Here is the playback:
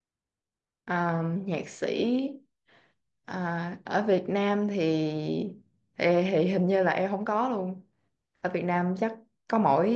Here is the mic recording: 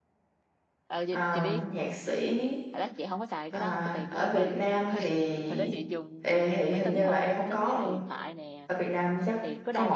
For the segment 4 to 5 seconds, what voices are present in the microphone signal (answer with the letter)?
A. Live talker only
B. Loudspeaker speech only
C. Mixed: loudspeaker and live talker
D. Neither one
C